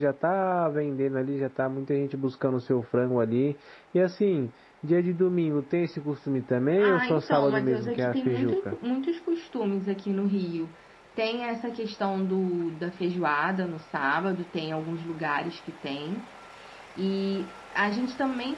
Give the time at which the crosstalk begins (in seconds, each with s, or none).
6.8 s